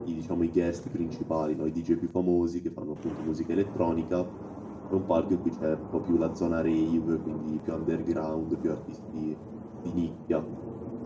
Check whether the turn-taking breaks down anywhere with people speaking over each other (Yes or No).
No